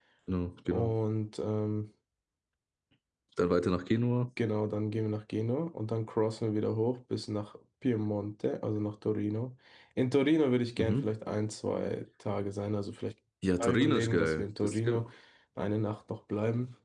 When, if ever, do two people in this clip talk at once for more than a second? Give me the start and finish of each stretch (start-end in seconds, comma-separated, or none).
13.6-15.0